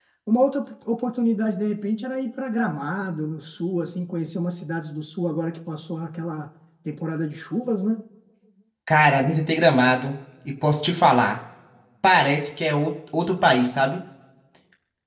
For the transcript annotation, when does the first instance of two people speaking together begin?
none

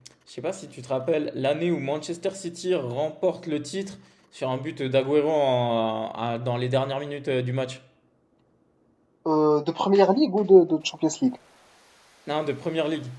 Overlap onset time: none

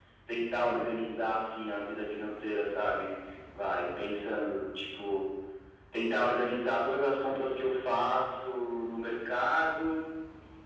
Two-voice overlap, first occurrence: none

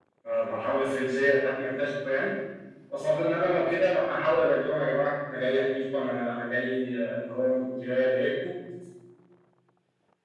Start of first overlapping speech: none

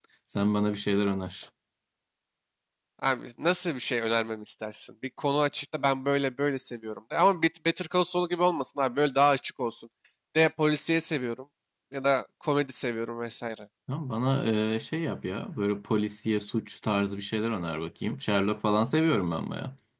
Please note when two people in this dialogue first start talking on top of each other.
none

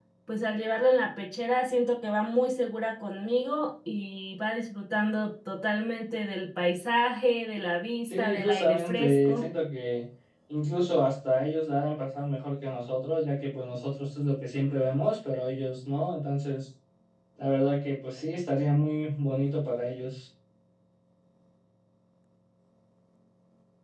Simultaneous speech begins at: 8.1 s

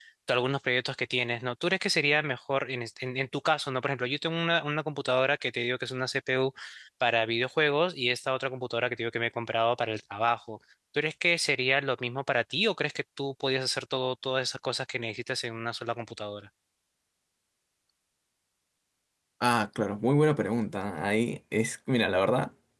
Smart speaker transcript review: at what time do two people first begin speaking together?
none

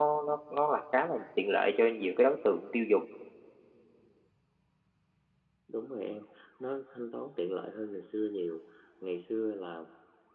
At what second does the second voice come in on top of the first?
none

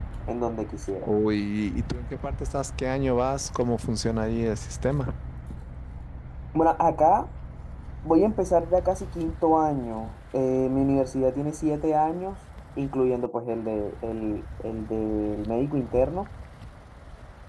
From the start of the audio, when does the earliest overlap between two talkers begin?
none

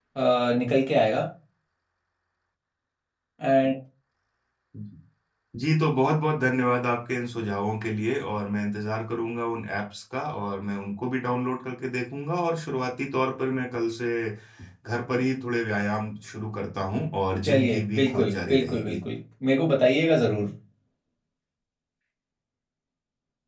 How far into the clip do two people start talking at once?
17.4 s

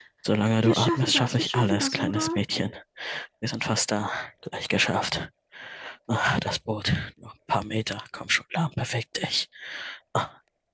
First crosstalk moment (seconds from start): 0.6 s

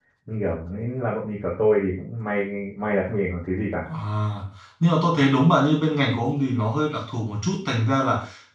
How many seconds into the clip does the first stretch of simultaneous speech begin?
none

